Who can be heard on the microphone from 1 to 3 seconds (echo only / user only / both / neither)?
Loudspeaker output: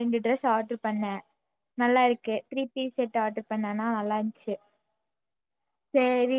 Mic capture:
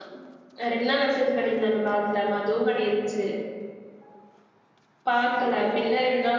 user only